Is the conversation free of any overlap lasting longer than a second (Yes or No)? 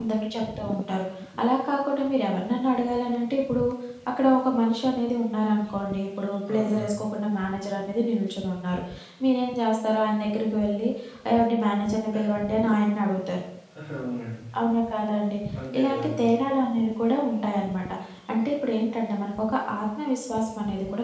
Yes